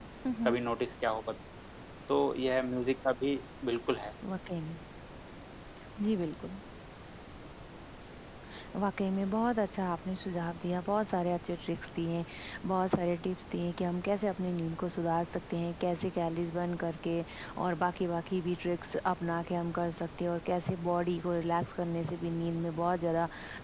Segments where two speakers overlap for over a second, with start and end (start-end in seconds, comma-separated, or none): none